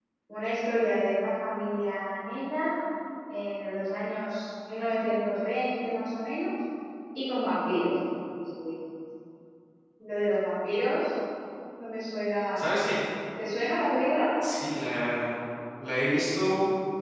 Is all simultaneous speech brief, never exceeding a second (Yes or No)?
Yes